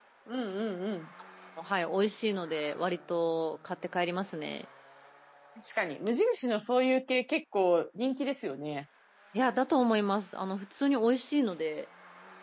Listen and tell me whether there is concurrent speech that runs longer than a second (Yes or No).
No